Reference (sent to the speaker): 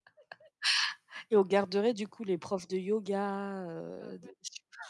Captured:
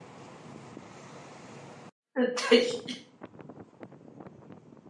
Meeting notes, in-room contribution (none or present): present